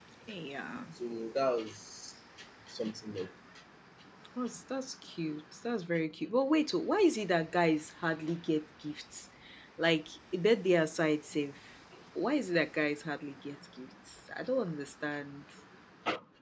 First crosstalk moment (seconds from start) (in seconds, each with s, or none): none